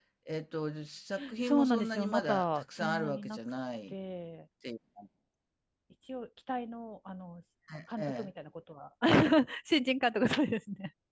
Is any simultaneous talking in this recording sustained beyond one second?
Yes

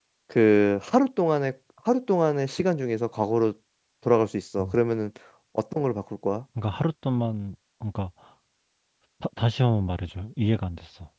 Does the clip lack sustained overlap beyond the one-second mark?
Yes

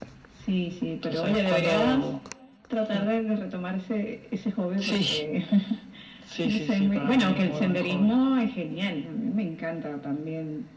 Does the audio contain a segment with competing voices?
Yes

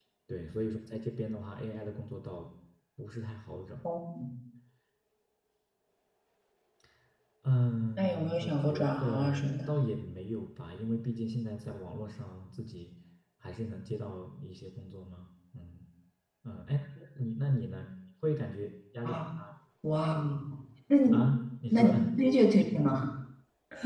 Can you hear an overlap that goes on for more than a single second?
Yes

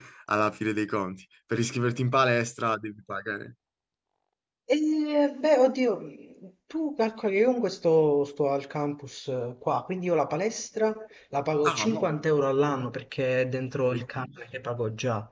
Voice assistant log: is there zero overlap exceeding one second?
Yes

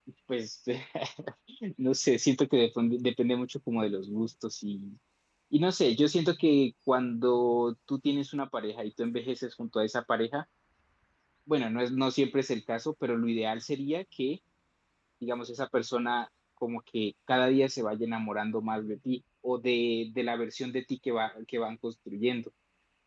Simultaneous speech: No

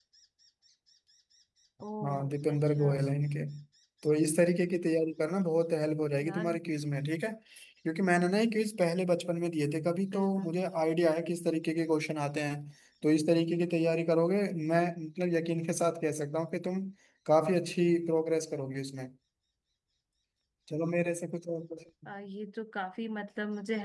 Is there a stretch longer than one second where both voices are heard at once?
No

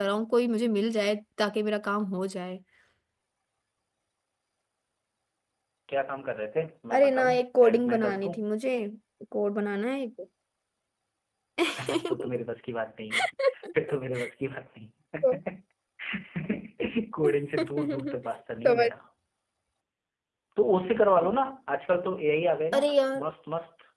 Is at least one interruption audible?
Yes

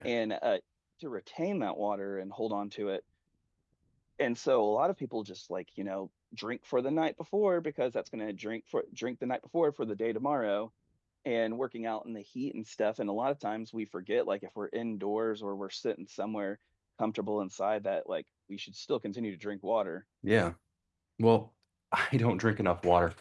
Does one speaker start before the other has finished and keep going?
No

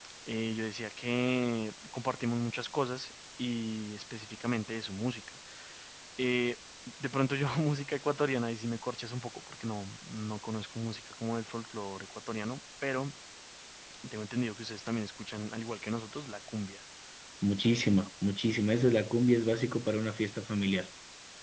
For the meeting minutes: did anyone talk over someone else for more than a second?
No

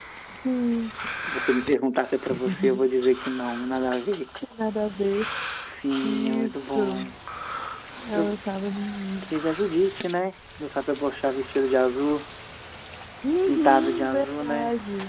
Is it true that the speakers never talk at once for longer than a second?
No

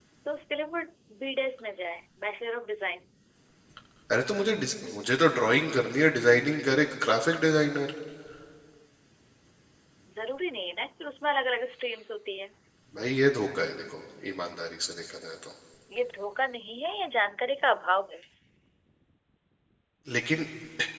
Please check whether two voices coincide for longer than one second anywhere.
No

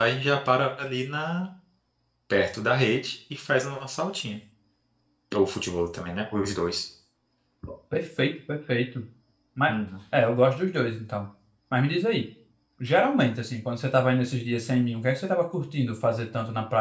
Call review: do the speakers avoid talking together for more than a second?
Yes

